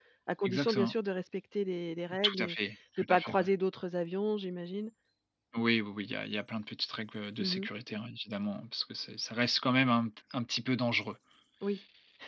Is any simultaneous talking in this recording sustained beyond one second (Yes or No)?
No